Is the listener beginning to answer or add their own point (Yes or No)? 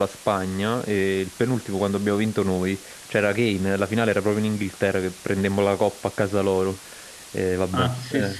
Yes